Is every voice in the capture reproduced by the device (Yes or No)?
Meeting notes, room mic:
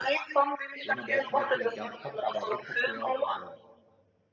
No